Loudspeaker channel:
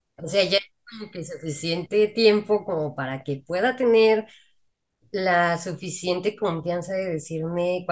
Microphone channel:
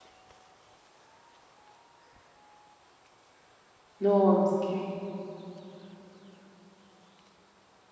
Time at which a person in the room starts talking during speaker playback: 4.0 s

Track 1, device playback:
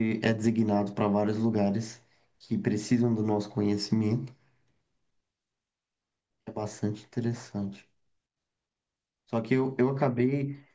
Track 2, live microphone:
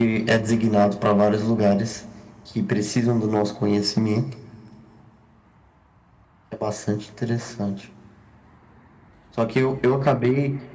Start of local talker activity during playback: none

